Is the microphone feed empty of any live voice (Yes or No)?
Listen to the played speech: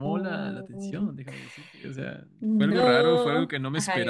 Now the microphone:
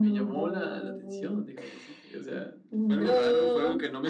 Yes